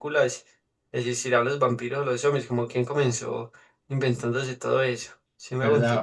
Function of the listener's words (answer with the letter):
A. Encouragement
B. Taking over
B